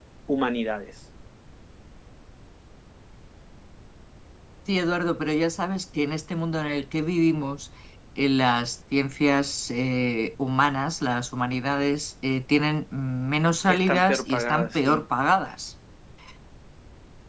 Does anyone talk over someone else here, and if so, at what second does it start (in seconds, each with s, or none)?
13.7 s